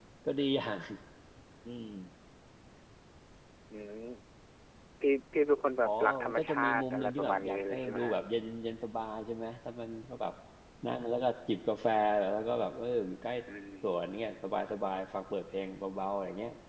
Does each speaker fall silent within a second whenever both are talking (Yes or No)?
No